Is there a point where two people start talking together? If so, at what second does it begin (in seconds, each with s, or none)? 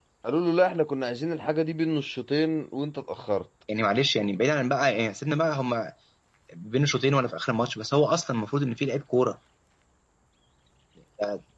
none